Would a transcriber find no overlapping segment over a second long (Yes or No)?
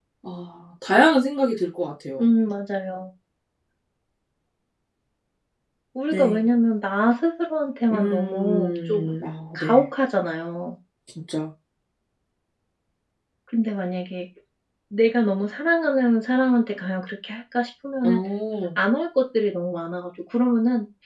No